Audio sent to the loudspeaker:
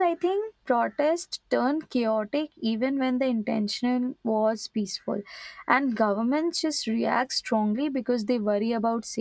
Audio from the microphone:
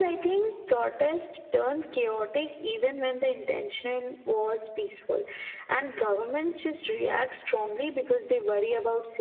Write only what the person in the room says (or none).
none